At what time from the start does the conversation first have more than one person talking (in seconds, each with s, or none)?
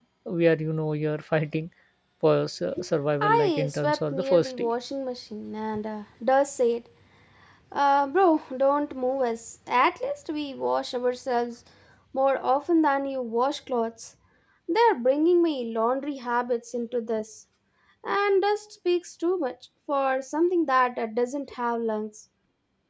3.2 s